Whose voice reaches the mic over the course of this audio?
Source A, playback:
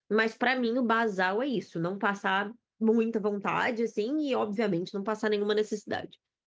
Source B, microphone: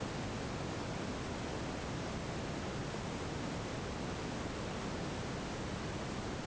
neither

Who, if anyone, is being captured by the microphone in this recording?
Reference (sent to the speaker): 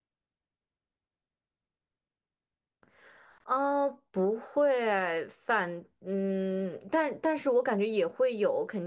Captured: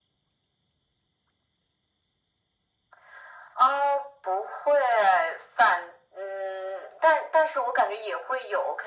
echo only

